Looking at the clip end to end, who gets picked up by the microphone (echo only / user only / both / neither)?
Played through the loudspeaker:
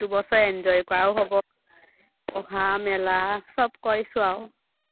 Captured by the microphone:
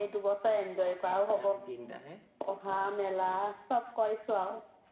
both